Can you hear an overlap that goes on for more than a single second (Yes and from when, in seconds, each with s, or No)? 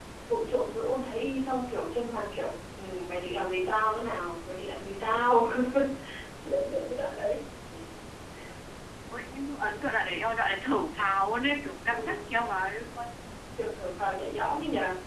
No